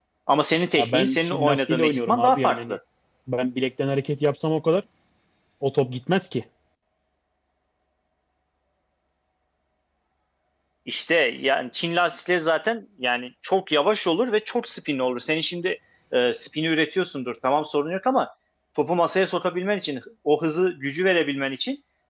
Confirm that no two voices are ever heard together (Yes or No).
No